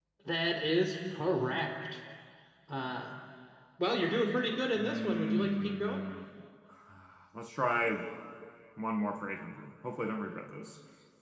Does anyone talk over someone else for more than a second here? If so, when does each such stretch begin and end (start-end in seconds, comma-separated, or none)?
4.8-6.0